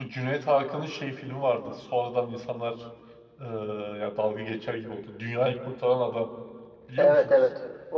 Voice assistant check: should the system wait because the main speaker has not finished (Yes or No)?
No